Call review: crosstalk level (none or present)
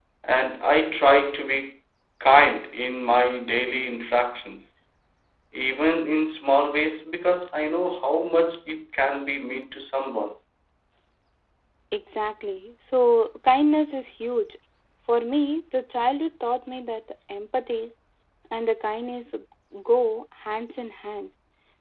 none